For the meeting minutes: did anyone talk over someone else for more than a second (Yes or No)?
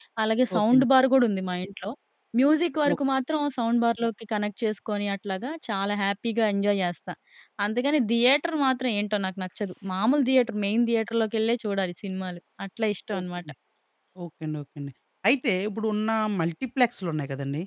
No